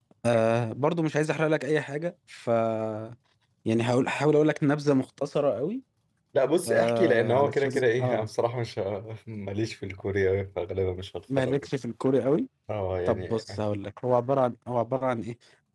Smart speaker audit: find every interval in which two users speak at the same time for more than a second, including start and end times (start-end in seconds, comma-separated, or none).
6.7-8.3